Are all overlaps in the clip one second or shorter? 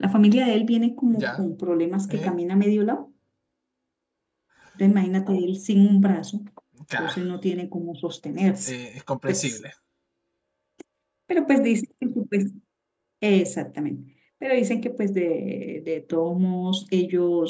Yes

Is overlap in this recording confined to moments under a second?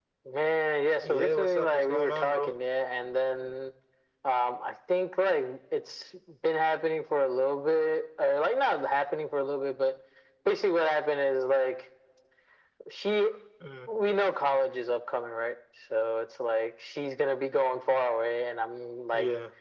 No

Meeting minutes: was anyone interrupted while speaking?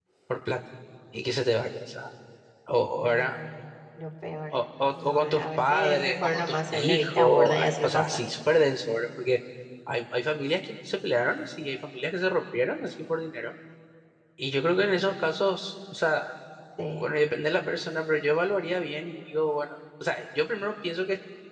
Yes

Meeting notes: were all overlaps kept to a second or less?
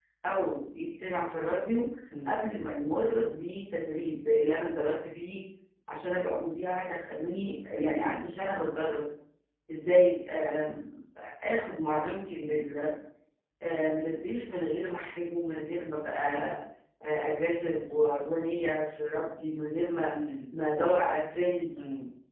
Yes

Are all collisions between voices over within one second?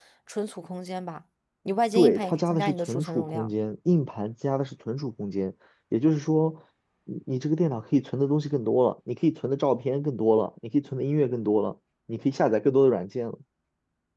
No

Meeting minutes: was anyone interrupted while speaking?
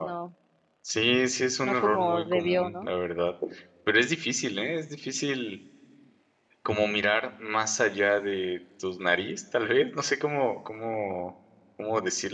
Yes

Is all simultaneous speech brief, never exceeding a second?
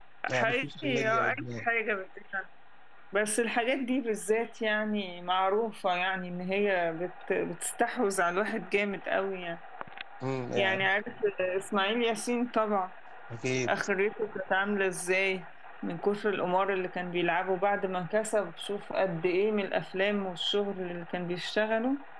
No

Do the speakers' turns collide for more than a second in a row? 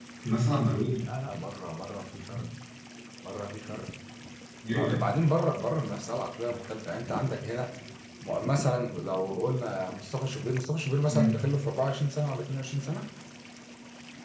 No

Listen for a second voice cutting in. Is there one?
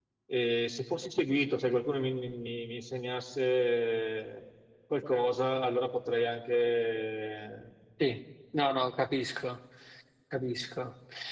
No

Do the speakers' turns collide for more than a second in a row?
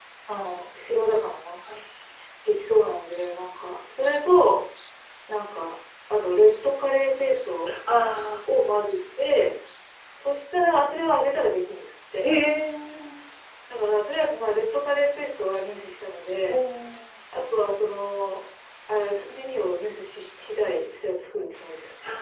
No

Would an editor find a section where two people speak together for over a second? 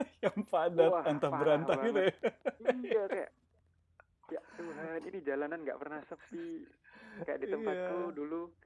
Yes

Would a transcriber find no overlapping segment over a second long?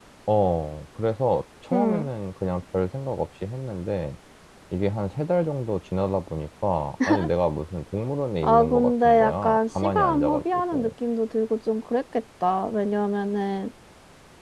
No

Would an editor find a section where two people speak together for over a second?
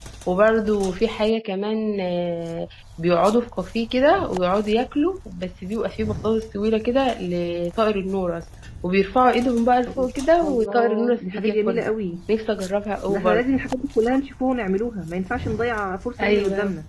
Yes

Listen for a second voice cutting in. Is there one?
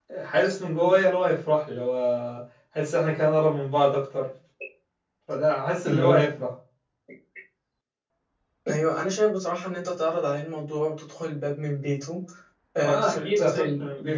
Yes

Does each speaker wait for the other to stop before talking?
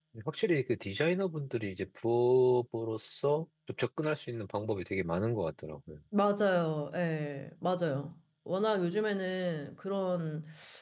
Yes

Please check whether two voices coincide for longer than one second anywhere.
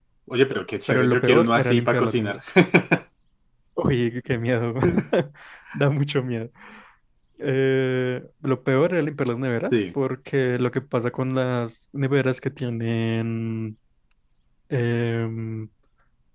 Yes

